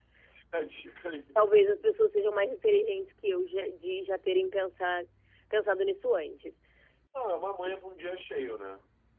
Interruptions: none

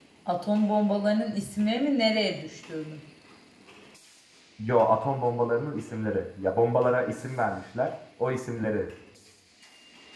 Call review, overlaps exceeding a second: none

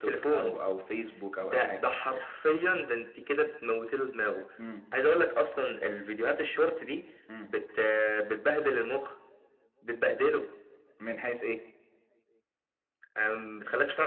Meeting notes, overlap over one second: none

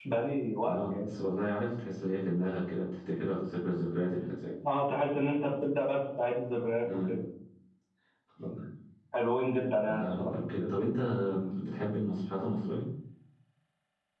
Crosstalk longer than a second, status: none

